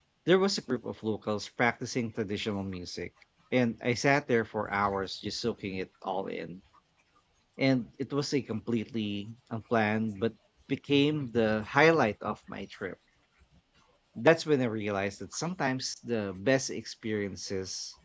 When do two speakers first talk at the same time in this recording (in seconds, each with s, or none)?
none